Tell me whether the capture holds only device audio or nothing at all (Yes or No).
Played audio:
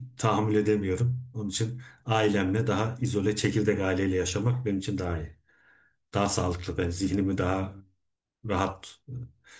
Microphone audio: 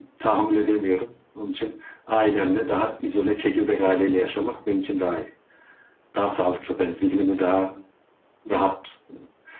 Yes